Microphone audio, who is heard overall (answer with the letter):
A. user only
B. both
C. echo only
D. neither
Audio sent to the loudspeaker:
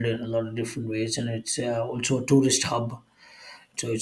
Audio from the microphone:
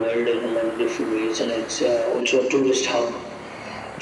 C